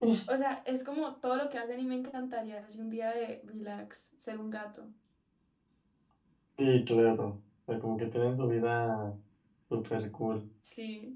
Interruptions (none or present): none